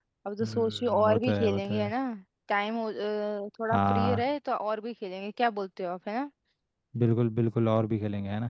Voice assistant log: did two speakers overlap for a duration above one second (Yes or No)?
Yes